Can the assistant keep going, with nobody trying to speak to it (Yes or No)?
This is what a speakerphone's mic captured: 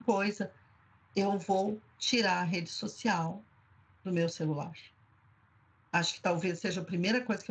No